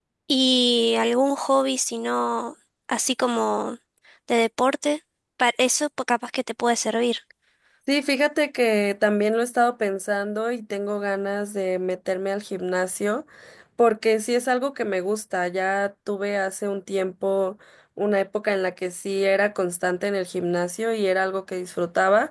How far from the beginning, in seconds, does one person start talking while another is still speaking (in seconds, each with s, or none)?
none